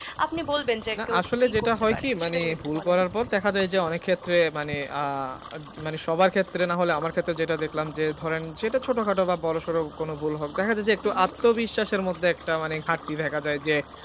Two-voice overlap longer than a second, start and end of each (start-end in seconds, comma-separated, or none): 1.1-3.0